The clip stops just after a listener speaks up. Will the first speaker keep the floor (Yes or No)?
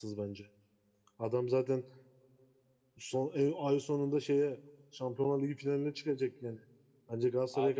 No